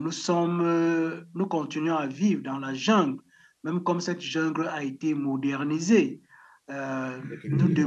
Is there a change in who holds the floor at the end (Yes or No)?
No